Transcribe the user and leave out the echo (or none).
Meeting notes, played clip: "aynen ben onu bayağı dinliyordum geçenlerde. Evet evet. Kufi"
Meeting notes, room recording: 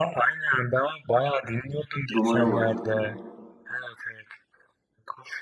Dumanım var.